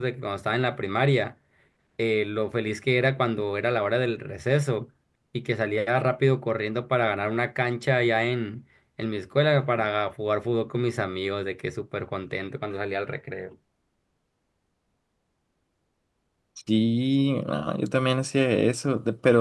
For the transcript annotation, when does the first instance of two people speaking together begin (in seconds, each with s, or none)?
none